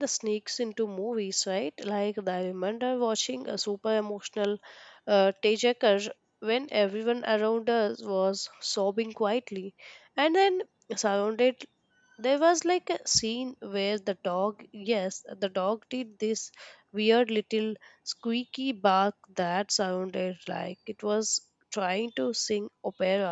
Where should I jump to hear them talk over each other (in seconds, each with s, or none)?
none